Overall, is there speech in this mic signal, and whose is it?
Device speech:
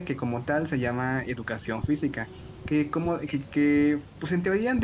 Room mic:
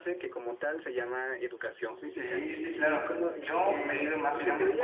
both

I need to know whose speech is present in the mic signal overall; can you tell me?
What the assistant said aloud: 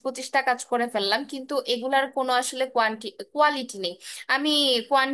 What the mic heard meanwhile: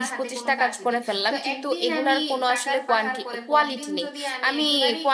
both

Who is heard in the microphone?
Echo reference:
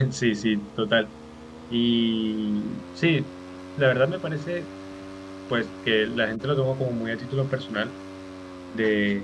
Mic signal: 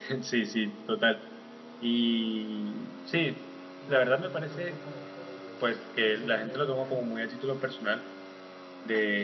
both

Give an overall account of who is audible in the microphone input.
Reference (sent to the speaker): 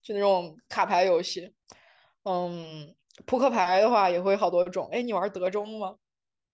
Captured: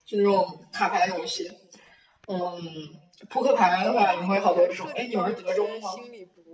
both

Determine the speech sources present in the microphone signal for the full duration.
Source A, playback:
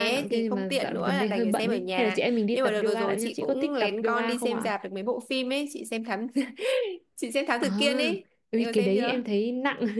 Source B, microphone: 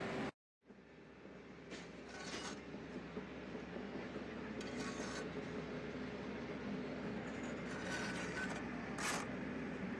neither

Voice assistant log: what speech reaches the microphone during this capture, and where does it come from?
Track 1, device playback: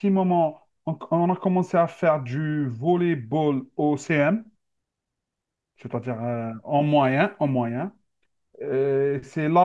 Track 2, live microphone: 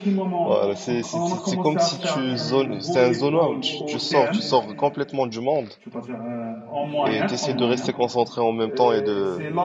both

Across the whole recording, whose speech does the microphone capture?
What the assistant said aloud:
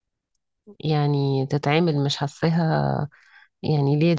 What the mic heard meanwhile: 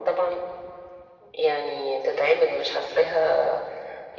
echo only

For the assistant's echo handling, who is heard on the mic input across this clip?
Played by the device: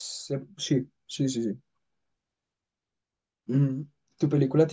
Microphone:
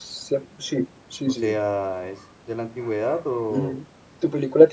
both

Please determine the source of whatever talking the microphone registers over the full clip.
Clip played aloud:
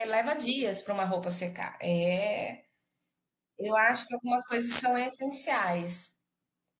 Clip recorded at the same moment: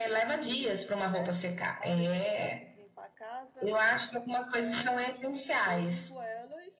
both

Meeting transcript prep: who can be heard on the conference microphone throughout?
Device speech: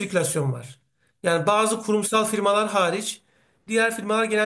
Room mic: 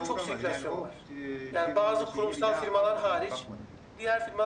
both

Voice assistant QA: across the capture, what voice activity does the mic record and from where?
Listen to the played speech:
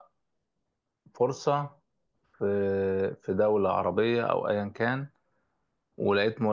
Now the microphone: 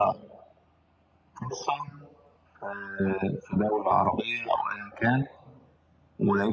echo only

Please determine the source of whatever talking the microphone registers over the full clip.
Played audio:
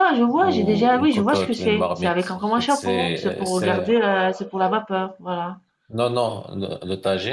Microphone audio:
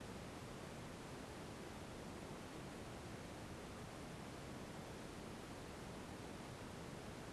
neither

